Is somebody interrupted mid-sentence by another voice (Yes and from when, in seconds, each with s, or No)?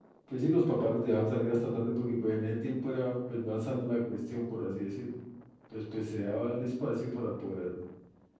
No